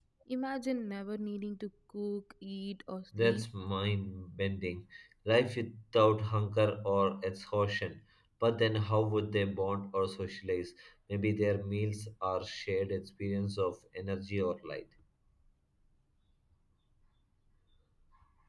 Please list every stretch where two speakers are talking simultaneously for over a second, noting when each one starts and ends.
none

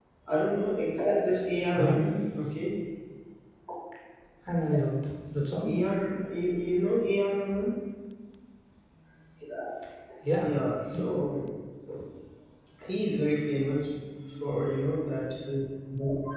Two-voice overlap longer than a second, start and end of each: none

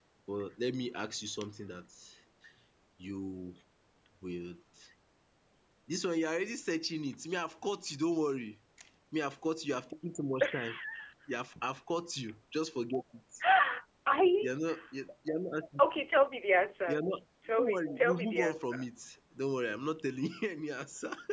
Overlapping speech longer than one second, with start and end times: 17.6-18.9

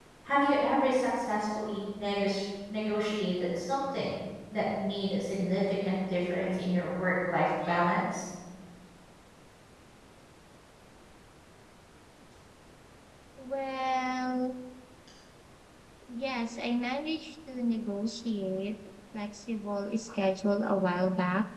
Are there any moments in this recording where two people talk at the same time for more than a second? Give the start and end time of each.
none

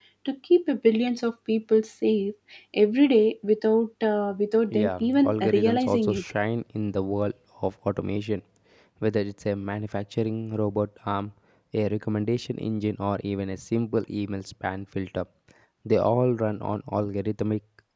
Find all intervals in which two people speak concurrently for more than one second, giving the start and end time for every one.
4.7-6.2

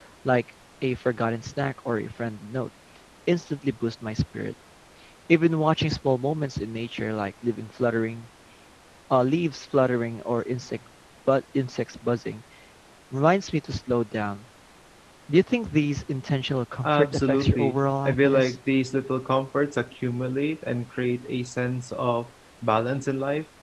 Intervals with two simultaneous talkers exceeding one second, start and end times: 16.8-18.6

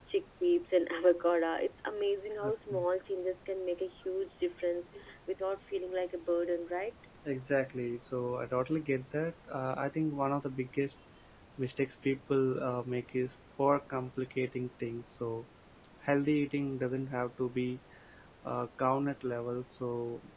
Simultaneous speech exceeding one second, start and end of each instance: none

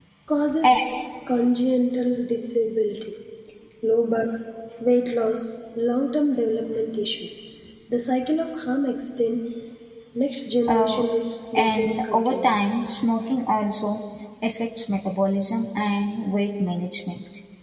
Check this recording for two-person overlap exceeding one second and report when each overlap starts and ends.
11.6-12.8

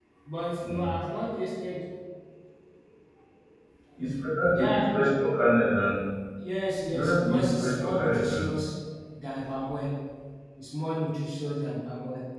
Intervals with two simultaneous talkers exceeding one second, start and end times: 6.9-8.5

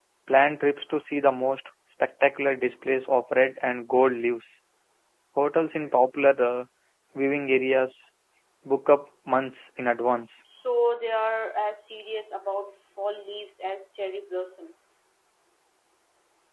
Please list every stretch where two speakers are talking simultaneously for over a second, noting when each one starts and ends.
none

